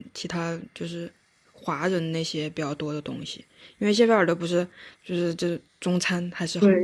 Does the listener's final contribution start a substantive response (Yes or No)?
Yes